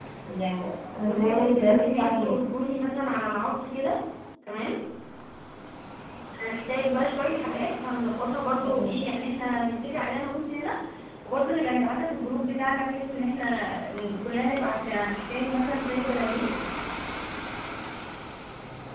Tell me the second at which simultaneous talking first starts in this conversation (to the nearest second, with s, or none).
1 s